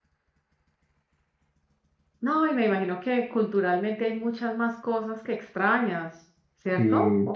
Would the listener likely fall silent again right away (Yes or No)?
No